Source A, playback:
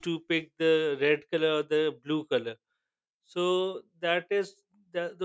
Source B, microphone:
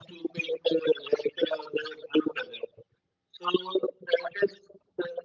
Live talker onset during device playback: none

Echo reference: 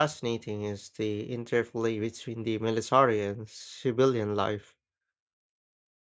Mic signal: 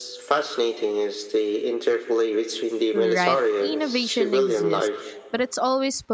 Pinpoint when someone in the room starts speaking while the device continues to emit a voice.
2.9 s

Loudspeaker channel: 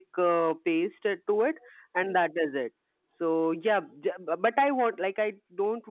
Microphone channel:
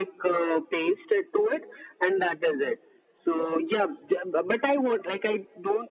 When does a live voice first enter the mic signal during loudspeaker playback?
none

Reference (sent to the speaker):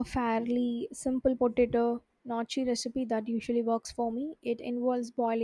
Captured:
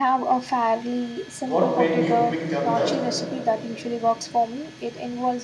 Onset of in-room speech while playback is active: 1.4 s

